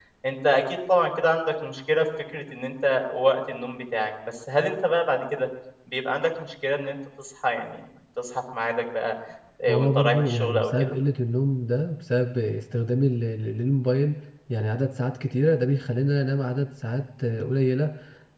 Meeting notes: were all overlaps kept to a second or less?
No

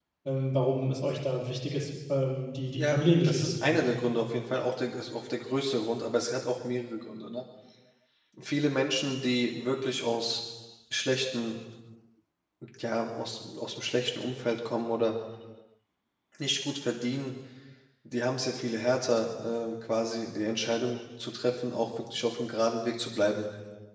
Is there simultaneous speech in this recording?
Yes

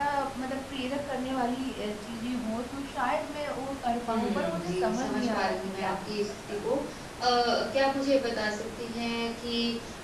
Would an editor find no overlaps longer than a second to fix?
No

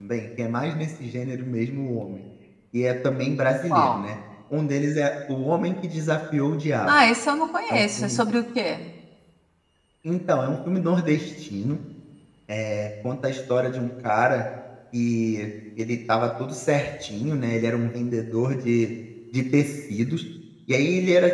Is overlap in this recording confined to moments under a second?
Yes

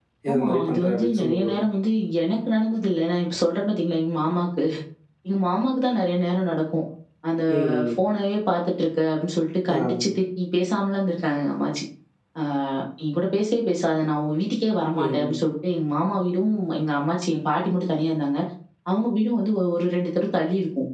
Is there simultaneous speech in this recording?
Yes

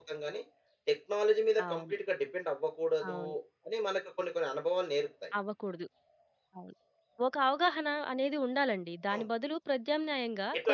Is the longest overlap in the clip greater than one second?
No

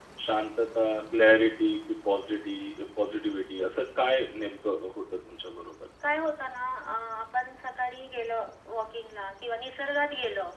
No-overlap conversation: Yes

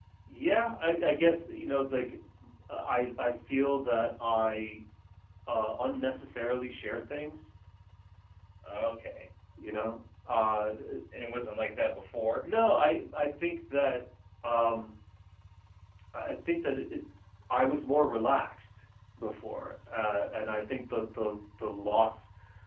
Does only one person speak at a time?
Yes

